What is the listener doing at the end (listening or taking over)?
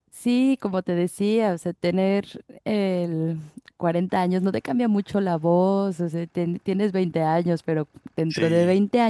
listening